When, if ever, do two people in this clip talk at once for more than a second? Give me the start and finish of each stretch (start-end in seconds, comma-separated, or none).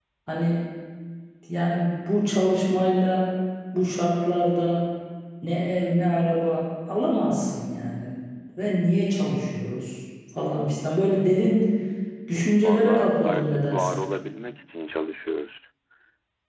12.6-14.0